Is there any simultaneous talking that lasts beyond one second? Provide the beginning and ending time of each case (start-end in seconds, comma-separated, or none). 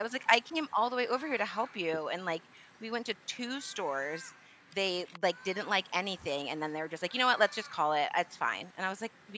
none